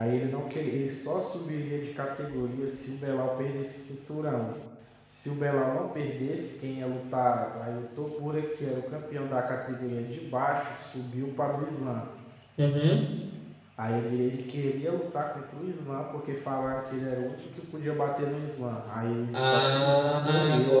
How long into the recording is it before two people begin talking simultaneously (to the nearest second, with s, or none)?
19 s